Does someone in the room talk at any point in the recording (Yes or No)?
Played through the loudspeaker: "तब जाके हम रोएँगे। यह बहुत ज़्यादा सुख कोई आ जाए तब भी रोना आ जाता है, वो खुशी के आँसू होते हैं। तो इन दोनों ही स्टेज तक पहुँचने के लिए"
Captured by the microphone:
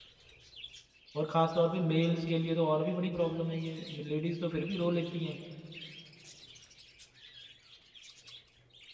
Yes